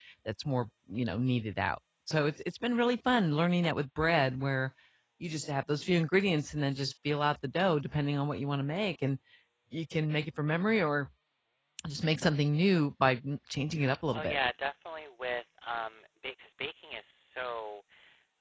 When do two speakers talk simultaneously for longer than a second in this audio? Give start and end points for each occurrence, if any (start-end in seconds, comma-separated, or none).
none